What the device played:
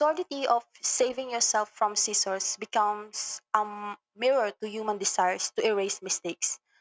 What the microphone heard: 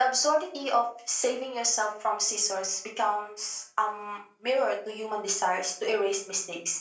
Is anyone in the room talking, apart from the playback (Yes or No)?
No